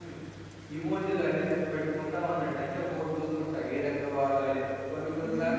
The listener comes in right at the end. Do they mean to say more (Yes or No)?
Yes